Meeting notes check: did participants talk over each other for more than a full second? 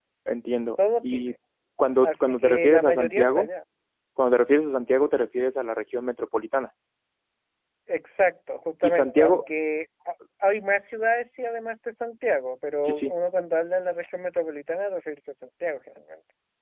Yes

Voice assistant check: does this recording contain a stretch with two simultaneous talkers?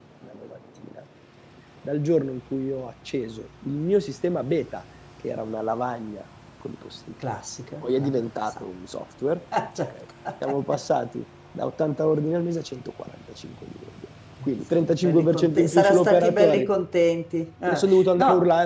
Yes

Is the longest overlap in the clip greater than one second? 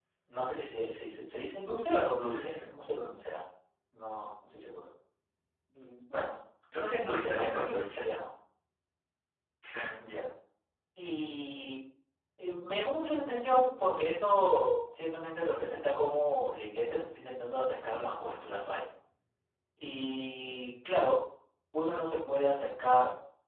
Yes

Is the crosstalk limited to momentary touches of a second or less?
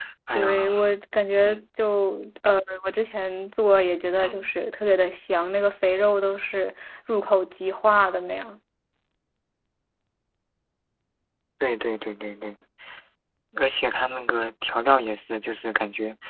Yes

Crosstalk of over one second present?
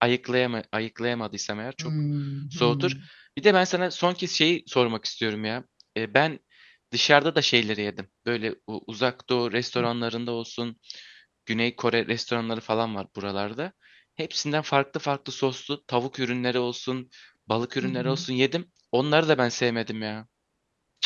No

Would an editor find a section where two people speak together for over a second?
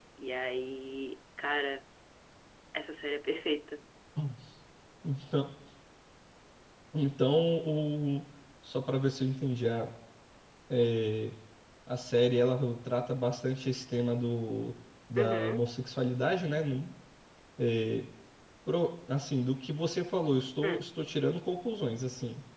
No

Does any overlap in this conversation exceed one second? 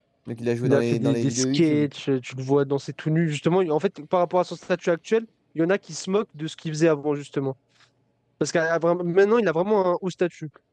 Yes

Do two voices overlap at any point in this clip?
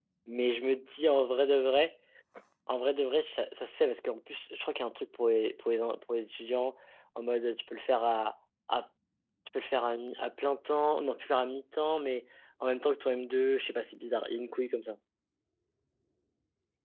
No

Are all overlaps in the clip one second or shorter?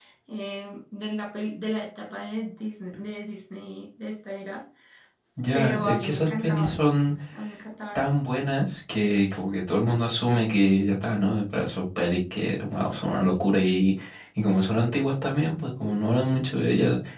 No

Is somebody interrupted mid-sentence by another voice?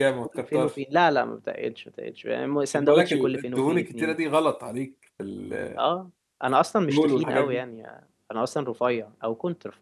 Yes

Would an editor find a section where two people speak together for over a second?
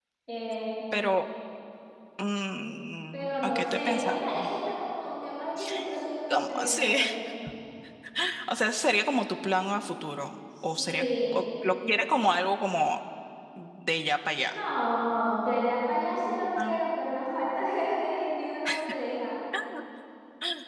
Yes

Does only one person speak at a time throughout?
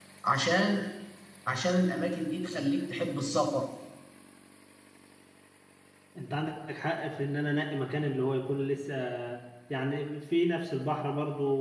Yes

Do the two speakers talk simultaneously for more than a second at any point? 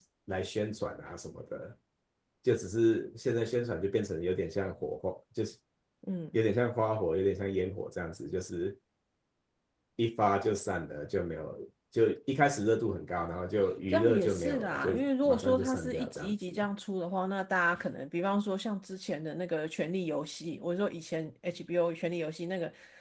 Yes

